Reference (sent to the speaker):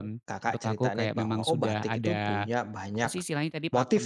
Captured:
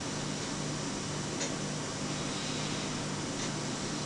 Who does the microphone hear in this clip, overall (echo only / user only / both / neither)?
neither